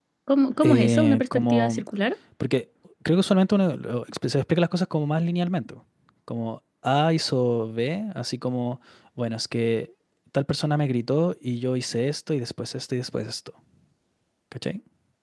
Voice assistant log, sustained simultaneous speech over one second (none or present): present